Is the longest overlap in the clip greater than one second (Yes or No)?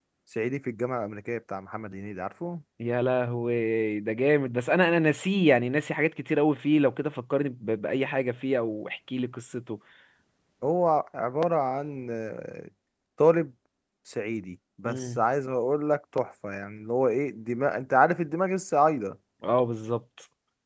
No